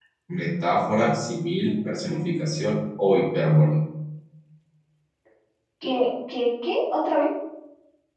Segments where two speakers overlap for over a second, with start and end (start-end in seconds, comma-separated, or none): none